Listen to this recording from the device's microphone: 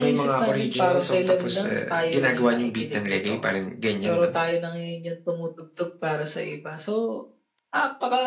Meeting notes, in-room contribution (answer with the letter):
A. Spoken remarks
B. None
B